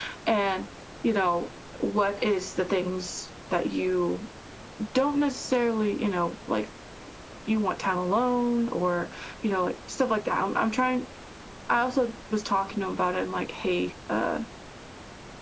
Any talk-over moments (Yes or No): No